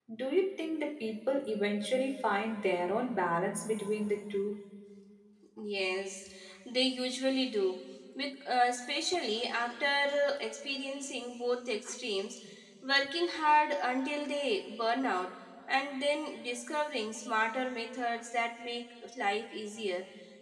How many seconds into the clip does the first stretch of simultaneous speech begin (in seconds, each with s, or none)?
none